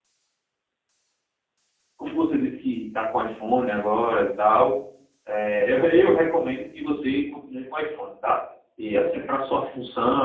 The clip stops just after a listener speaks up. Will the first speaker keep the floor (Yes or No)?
Yes